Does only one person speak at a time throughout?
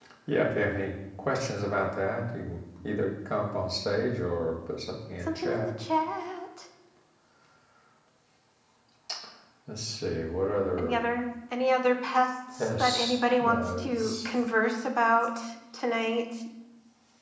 No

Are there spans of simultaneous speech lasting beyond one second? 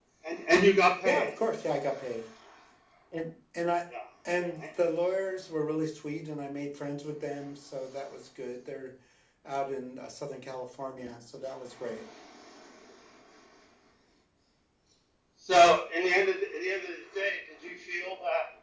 No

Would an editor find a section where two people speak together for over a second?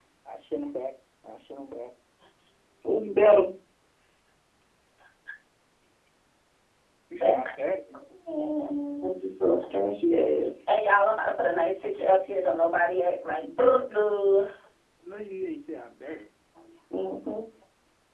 No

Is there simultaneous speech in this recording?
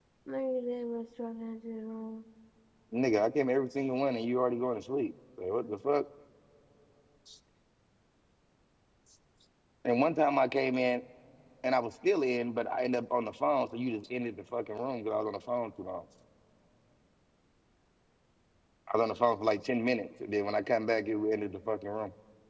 No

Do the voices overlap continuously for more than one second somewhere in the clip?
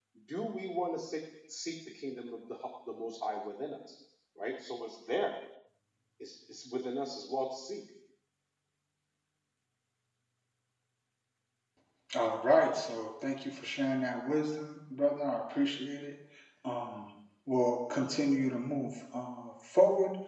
No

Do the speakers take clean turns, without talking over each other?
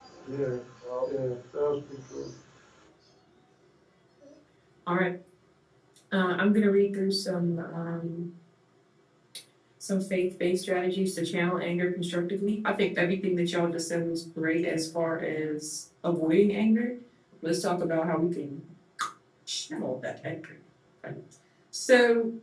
Yes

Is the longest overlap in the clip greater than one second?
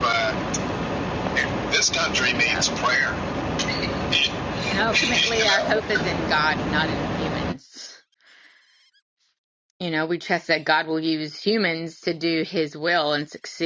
Yes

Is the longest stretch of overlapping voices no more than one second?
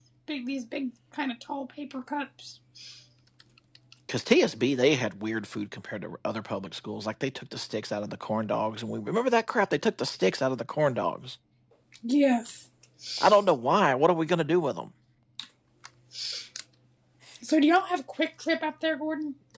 Yes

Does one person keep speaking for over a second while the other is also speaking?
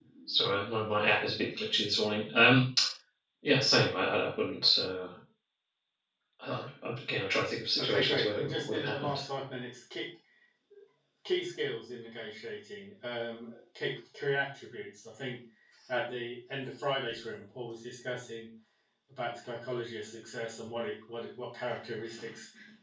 Yes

